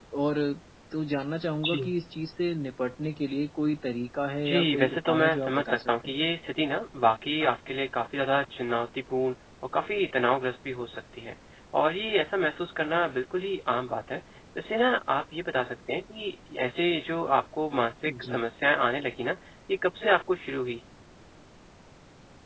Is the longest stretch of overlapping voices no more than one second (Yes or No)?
No